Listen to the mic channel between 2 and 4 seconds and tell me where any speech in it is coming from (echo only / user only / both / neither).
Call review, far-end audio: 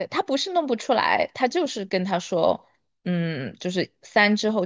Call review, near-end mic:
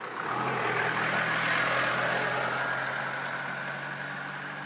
neither